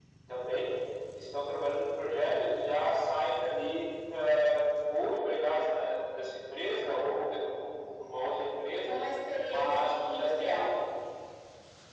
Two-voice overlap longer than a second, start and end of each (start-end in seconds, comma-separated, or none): 9.5-10.8